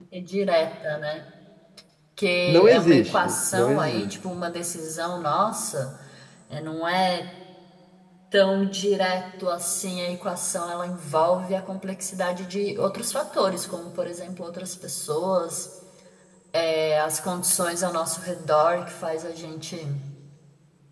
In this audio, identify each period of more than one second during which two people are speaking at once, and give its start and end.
2.5-4.1

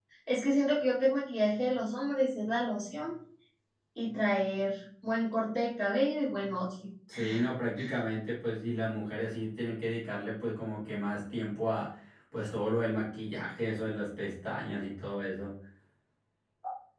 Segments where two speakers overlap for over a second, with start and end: none

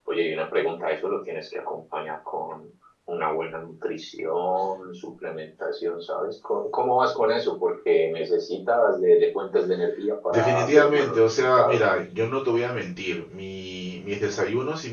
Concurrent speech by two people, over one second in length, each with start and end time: 10.3-11.8

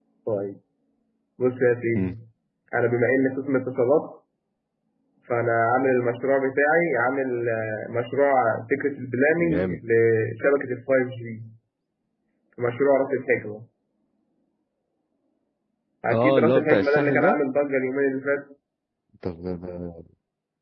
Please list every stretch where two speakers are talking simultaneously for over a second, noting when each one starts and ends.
16.1-17.4

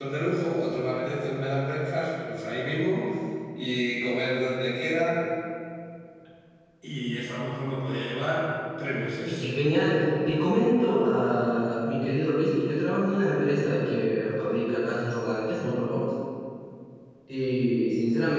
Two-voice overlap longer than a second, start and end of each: none

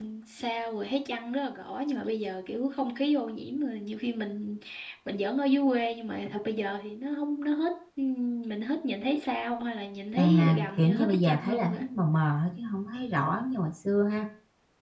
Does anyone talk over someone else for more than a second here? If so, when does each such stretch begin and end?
10.2-11.8

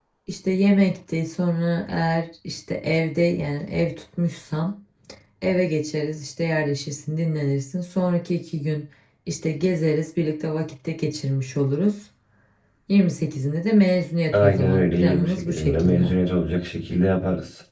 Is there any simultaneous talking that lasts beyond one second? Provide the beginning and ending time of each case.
14.3-16.1

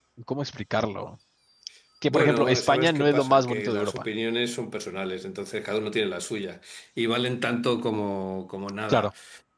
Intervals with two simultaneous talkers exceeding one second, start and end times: 2.1-4.0

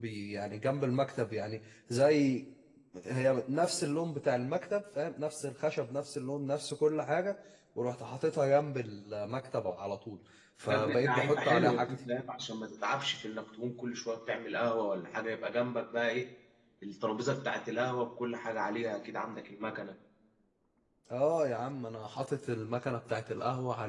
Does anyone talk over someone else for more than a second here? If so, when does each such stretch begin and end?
10.7-11.9

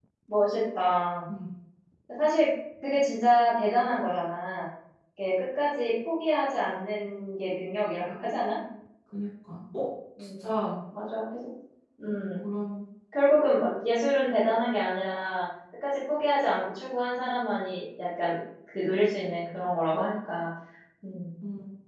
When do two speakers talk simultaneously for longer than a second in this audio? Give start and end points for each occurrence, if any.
none

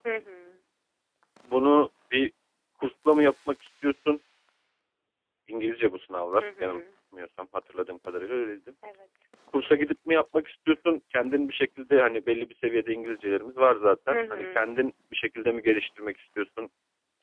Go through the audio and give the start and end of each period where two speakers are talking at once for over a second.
none

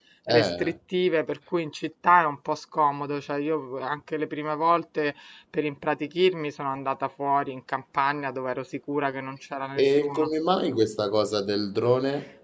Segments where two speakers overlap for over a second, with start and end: none

